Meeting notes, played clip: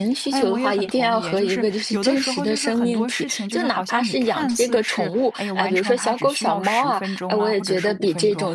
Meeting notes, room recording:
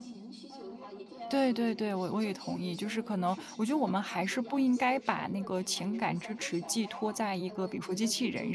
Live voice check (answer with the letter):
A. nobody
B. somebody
B